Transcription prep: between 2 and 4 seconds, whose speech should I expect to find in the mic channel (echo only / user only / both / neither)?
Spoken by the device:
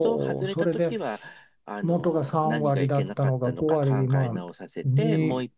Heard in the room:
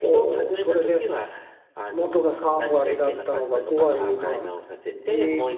echo only